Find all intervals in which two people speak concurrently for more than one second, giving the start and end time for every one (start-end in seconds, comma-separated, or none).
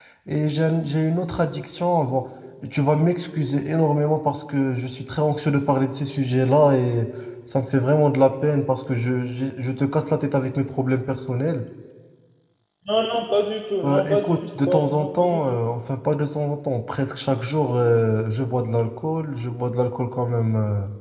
13.8-15.4